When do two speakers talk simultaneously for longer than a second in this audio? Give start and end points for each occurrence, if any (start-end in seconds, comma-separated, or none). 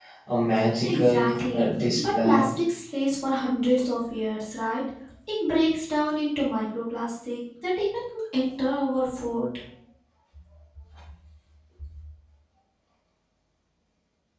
0.8-2.5